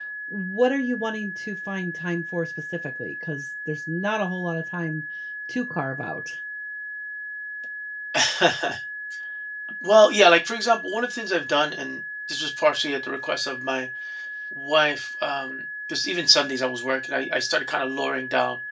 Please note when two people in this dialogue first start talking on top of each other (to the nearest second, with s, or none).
none